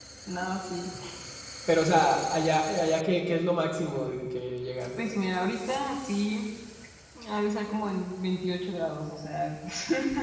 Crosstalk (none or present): none